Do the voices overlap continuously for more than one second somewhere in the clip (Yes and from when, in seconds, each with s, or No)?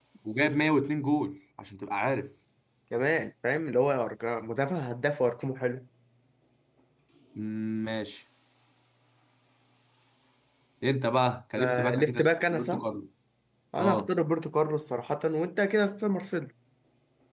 Yes, from 11.6 s